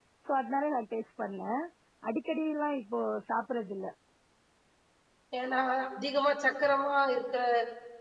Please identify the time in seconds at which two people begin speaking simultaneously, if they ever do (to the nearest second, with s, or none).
none